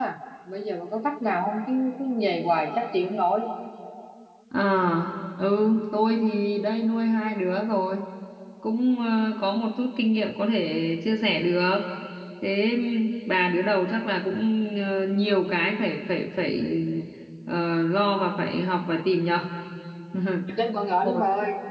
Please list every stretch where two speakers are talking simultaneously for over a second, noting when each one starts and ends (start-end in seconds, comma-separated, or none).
none